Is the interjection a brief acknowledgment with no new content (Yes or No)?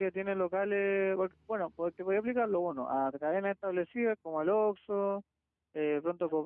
Yes